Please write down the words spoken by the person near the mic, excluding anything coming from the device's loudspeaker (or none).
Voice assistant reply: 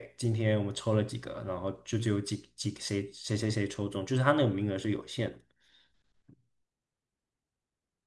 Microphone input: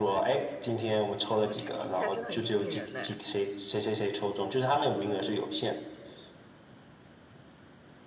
哇，这个听起来真的很吸引人呢。